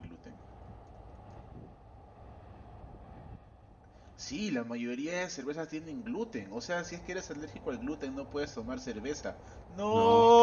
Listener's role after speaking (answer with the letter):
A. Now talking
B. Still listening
A